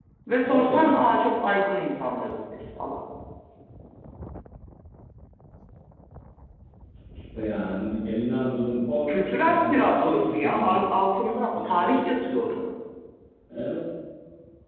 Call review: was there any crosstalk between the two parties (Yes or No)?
Yes